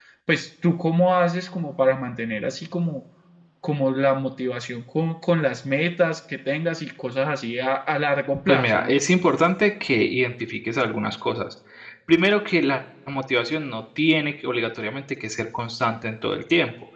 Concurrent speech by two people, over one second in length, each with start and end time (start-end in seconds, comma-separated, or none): none